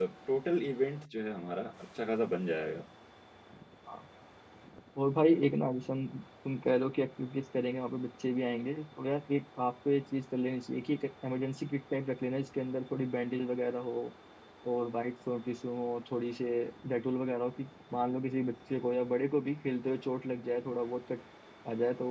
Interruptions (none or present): none